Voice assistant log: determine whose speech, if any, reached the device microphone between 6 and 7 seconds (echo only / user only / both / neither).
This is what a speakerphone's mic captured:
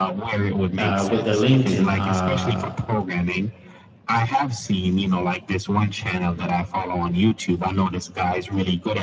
echo only